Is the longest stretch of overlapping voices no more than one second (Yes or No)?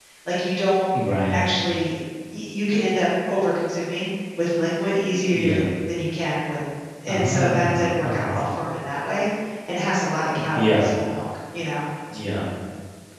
No